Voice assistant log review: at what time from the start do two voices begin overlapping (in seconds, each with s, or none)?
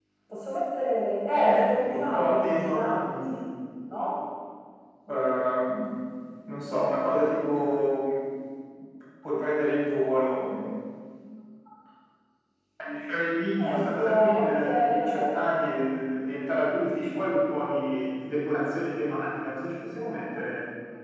1.3 s